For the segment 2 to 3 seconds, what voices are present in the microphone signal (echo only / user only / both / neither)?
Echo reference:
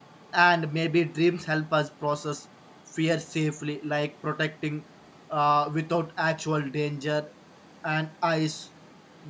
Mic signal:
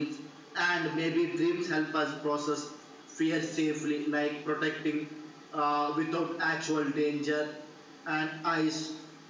echo only